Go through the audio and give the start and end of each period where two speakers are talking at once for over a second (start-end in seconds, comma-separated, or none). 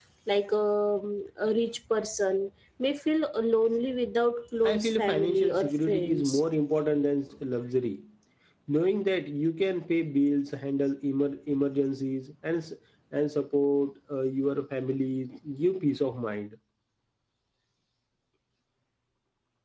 4.6-6.4